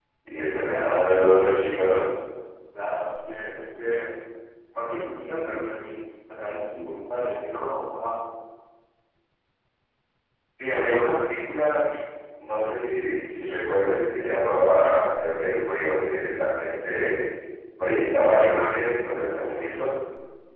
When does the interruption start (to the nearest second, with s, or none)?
1 s